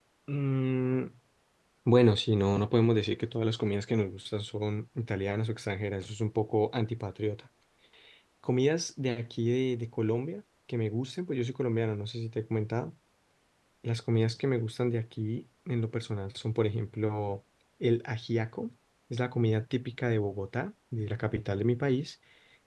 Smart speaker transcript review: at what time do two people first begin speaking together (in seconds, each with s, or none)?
none